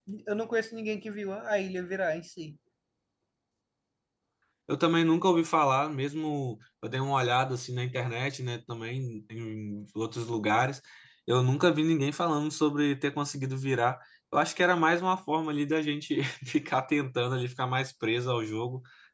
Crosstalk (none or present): none